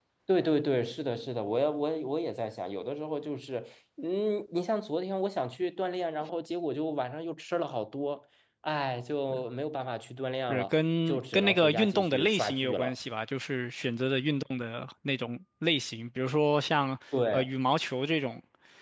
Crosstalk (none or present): present